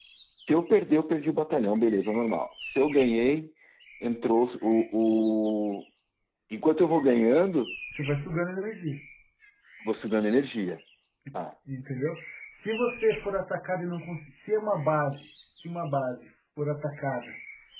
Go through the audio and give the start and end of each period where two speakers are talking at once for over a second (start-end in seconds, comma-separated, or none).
none